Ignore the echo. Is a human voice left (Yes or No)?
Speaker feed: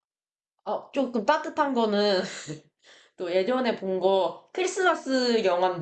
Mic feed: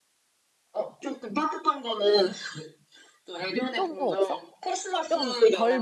Yes